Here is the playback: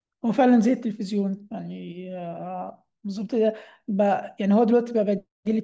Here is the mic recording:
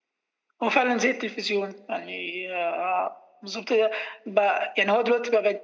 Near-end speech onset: none

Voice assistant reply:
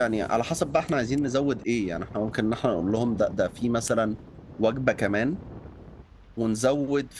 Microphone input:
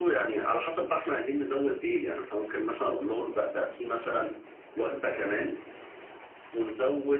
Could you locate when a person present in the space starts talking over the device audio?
none

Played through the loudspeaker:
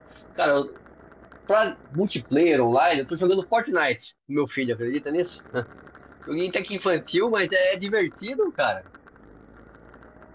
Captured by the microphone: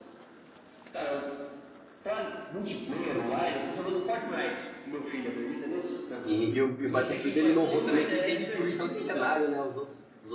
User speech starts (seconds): 6.2 s

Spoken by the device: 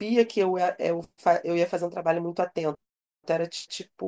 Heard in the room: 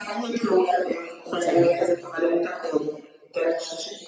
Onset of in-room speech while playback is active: 1.4 s

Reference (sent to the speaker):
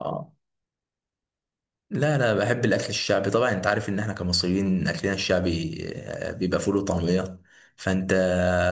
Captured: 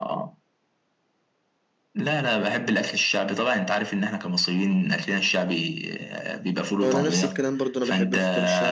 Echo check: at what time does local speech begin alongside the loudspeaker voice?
6.8 s

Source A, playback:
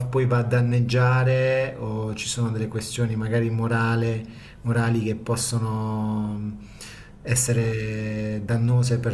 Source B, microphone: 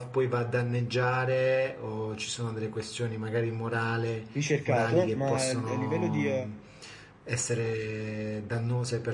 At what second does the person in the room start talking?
4.3 s

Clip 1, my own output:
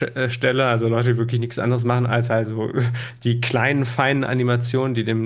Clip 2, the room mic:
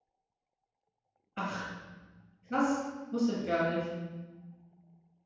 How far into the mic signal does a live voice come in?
1.3 s

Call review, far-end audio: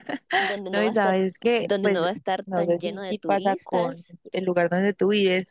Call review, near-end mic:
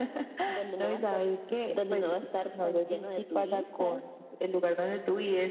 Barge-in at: none

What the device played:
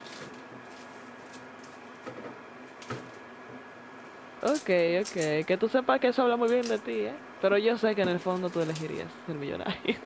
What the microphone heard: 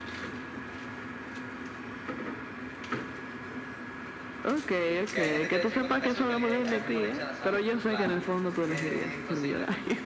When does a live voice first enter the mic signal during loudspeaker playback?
5.1 s

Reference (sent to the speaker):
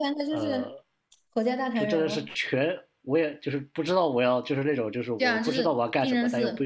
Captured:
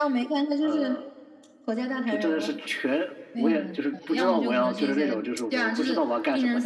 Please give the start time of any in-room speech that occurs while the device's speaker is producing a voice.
3.3 s

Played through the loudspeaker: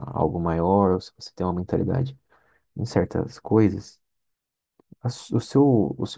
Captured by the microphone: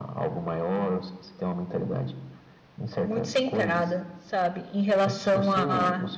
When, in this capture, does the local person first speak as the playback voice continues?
3.0 s

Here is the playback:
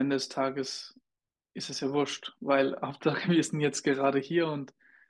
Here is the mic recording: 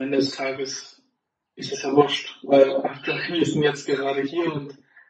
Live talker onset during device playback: none

